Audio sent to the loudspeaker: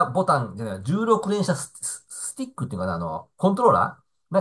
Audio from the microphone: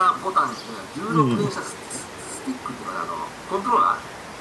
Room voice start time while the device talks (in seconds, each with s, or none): 1.1 s